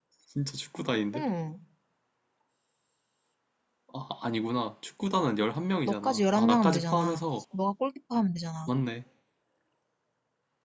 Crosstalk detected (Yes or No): Yes